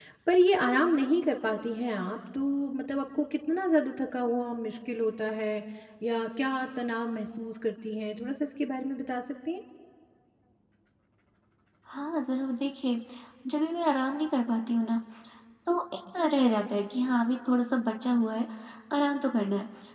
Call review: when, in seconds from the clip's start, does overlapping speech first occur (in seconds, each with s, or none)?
none